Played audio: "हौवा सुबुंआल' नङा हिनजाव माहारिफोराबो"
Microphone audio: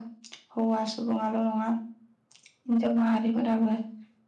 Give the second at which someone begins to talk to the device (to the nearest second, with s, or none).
none